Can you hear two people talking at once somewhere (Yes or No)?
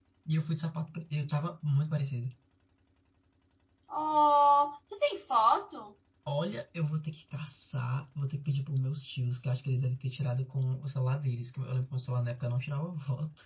No